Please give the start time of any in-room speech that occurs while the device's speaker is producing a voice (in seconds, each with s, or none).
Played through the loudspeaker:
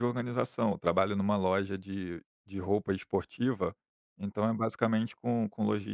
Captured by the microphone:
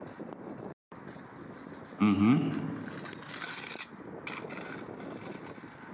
2.0 s